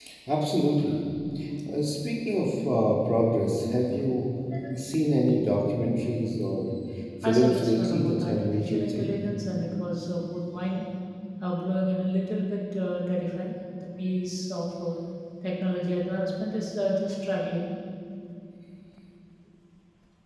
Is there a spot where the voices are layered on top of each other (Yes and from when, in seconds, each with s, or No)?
Yes, from 7.2 s